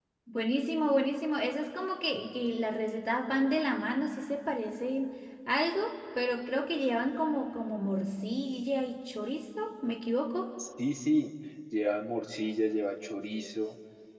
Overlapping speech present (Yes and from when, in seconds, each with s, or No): No